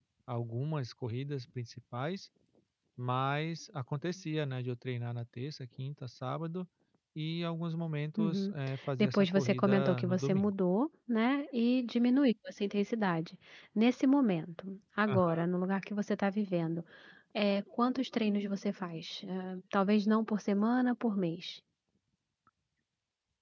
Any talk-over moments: Yes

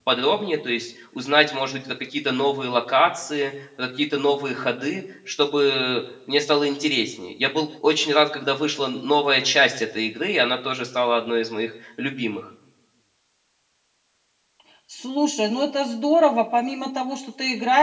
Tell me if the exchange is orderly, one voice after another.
Yes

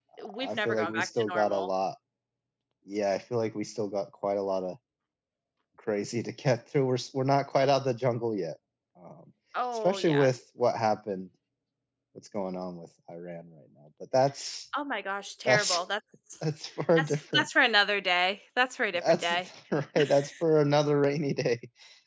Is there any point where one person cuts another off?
Yes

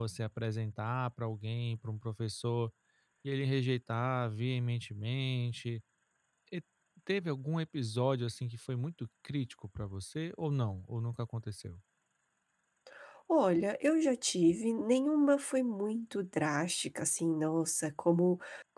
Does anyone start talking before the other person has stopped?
No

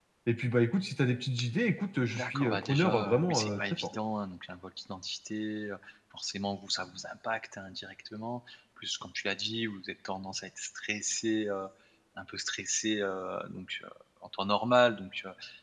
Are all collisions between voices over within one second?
No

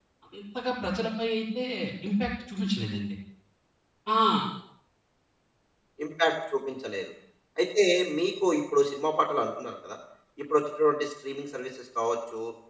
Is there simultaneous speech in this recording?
No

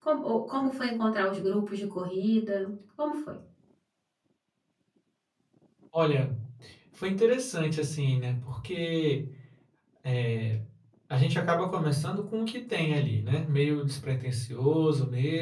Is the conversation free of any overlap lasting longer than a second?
Yes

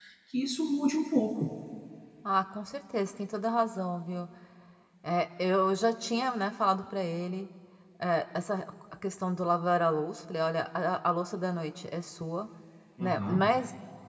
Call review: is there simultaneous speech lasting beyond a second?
No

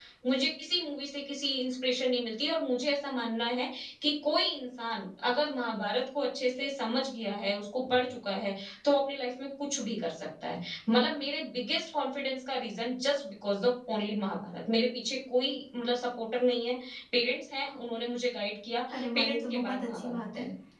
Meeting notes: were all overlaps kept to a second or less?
No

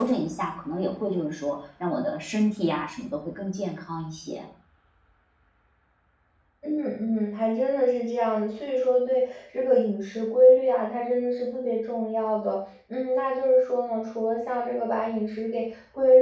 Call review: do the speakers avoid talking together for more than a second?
Yes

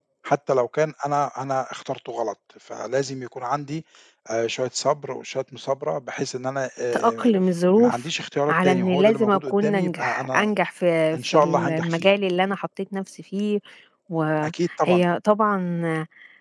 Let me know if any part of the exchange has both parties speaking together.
Yes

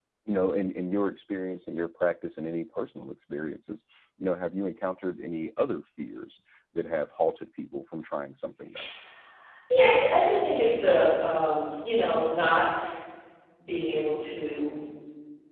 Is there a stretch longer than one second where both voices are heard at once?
No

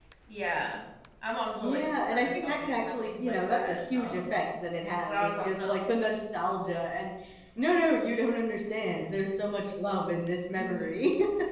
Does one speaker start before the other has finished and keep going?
Yes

